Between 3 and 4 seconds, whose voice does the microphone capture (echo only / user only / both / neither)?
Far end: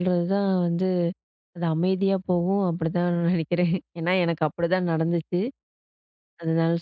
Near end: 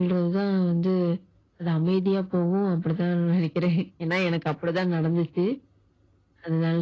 echo only